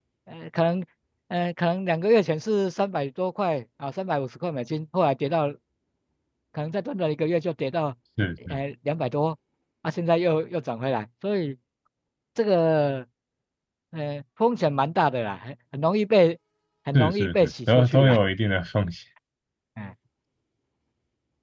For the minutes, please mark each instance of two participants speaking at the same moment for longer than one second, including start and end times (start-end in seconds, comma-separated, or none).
16.9-18.2